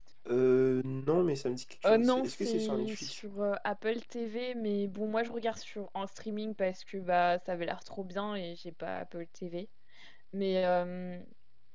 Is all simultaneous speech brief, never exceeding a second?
No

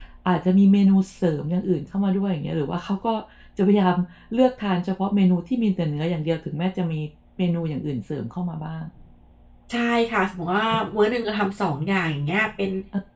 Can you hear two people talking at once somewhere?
No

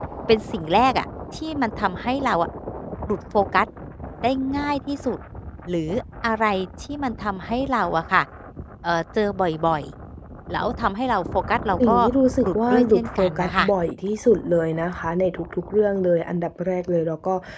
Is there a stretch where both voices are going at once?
Yes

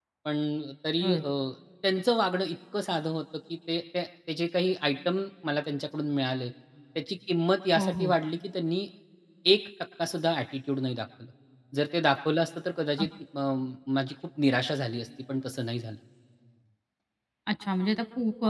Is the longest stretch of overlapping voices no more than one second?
Yes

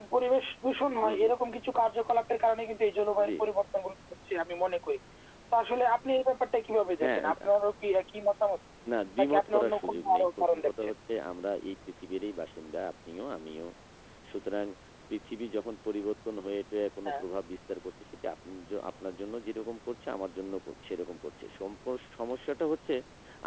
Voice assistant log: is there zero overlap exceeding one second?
No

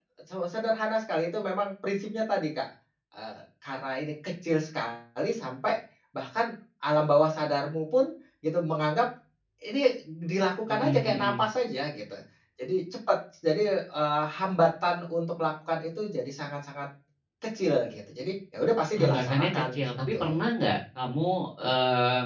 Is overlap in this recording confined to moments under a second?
No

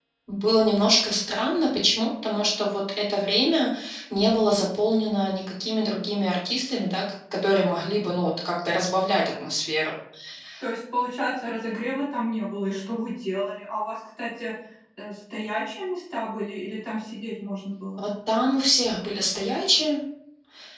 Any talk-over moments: No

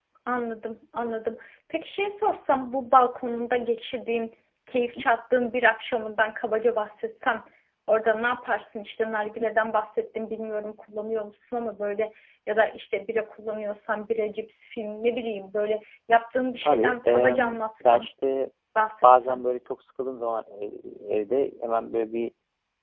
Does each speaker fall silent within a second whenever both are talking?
No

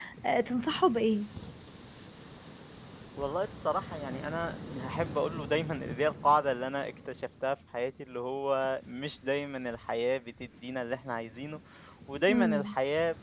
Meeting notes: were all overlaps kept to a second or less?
Yes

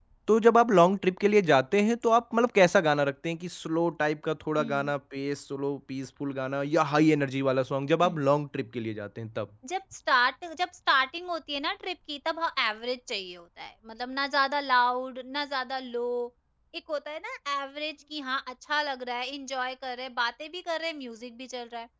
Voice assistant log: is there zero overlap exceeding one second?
Yes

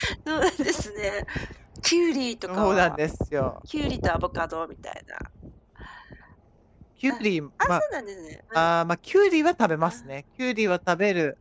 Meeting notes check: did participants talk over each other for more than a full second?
No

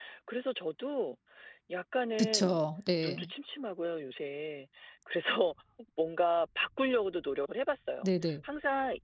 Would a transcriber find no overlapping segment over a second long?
Yes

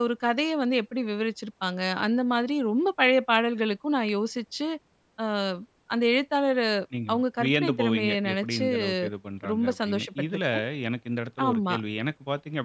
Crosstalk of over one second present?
Yes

